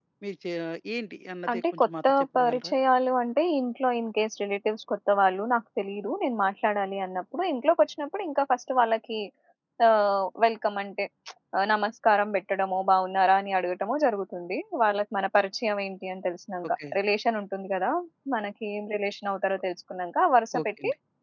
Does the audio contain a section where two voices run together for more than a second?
Yes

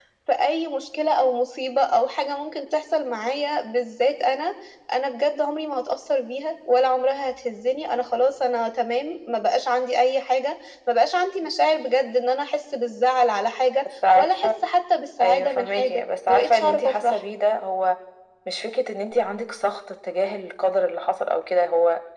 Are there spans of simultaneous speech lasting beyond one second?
Yes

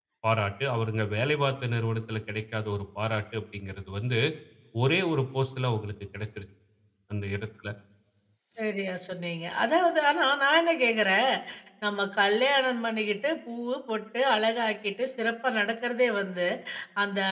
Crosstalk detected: No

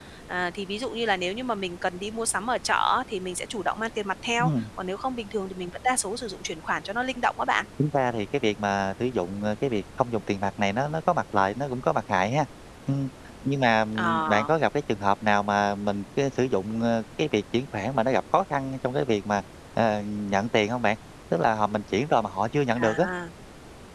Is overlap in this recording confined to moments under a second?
Yes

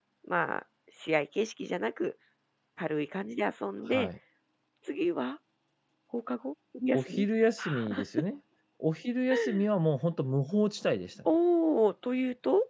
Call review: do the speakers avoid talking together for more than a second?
Yes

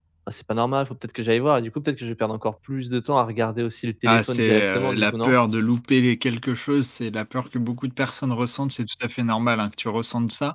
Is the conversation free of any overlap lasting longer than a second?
No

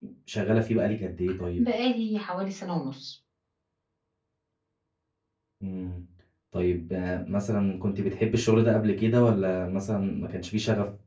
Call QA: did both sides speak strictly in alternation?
Yes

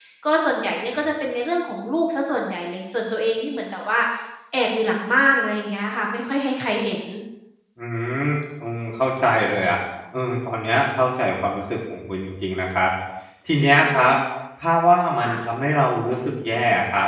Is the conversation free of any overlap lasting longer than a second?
Yes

